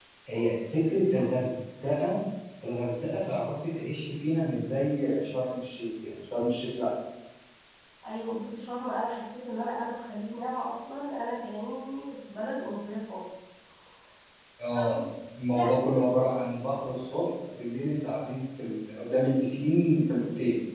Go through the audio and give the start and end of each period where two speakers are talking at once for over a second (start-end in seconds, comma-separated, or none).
none